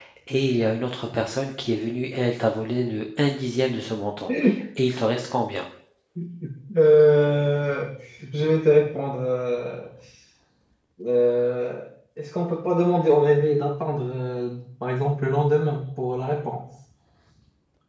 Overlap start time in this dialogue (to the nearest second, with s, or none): none